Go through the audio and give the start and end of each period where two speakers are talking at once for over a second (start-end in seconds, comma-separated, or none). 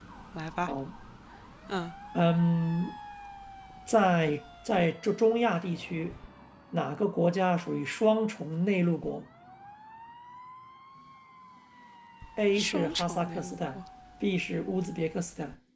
12.6-13.8